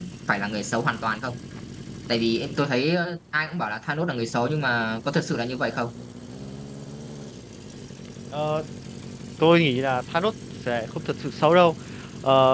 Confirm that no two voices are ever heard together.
Yes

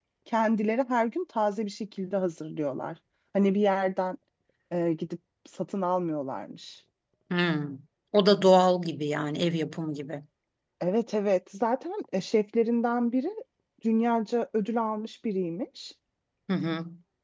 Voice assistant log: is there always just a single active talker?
Yes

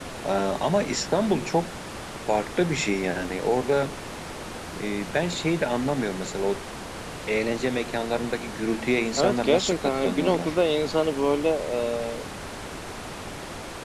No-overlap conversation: No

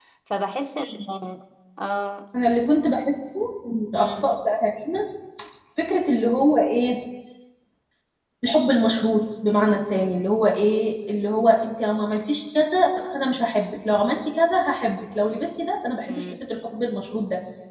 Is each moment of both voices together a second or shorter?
Yes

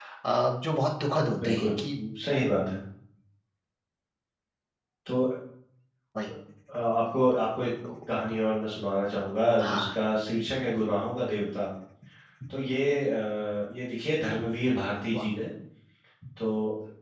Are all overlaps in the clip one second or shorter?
Yes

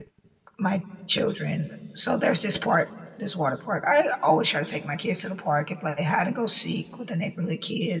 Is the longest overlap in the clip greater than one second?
No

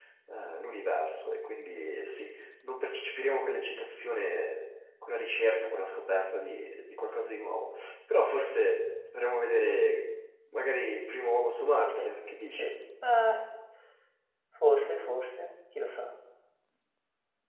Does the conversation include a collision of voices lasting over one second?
No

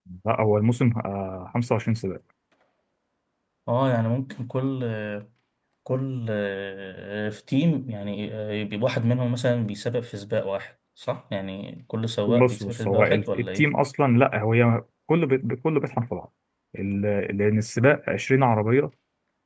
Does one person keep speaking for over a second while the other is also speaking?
Yes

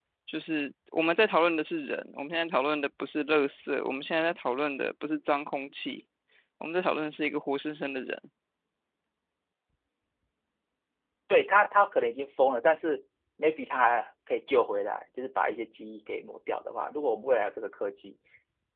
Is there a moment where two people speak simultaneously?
No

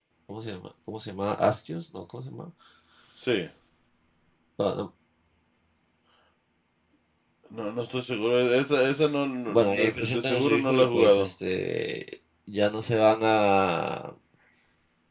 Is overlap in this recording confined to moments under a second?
No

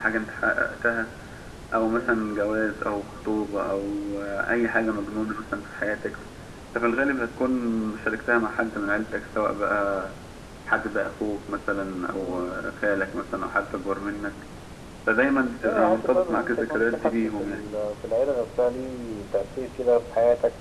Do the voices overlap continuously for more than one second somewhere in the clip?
Yes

